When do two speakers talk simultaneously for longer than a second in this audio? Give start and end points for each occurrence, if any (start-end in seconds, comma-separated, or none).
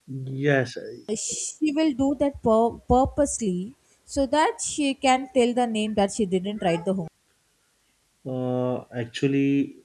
none